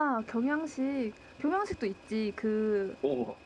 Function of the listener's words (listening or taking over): listening